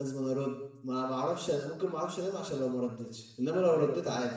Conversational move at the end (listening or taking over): taking over